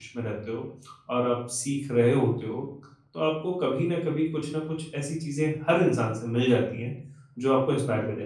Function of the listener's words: listening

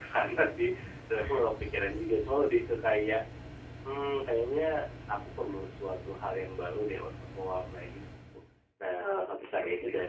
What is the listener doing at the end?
listening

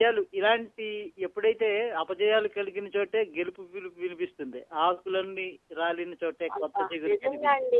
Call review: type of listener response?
taking over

